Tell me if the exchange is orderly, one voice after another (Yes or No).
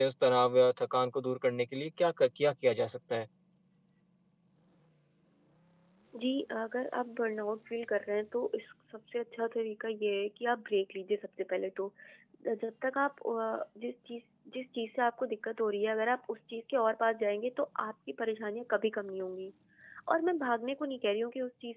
Yes